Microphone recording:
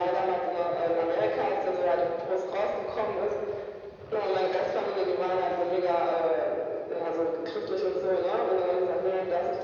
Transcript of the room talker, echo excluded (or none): none